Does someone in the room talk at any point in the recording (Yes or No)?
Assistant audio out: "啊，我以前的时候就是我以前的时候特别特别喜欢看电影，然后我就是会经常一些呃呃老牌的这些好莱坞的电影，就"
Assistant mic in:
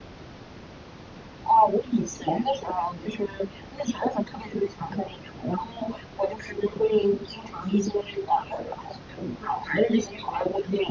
No